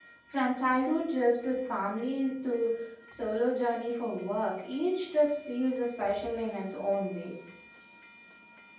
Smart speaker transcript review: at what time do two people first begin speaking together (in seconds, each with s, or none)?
none